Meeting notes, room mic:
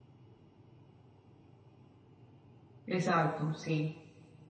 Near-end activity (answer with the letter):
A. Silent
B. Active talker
B